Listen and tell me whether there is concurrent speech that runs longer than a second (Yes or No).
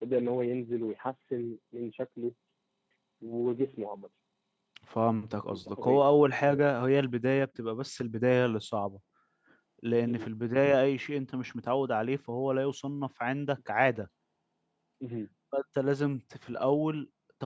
No